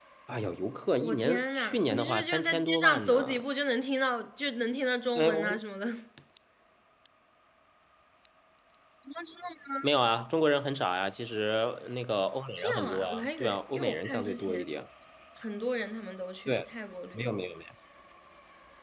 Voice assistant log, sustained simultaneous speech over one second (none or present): present